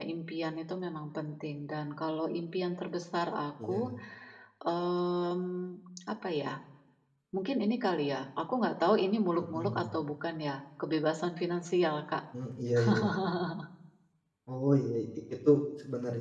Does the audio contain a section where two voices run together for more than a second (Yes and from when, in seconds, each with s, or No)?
No